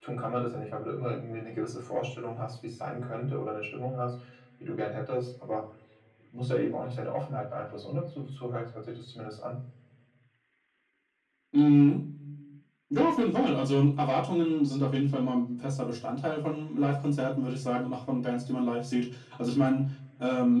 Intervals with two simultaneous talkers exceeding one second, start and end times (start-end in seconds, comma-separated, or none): none